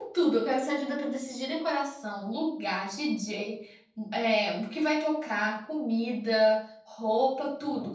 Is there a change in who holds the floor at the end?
No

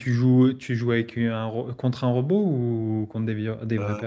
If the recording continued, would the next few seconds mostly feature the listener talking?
Yes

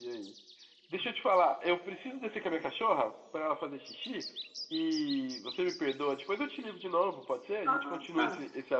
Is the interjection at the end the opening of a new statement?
Yes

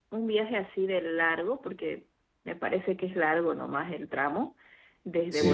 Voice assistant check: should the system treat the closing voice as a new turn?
No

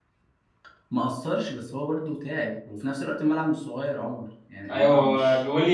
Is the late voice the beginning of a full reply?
Yes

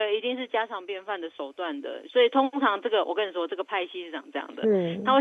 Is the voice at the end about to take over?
No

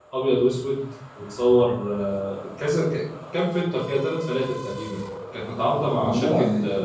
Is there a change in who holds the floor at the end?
No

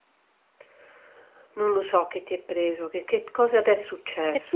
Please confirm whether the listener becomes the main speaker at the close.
Yes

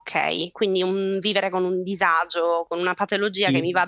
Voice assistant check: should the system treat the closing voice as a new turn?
No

